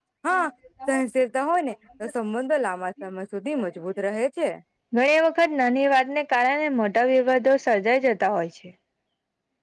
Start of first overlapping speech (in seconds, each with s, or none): none